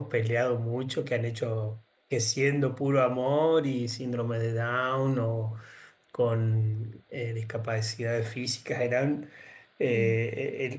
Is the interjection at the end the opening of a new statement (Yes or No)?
No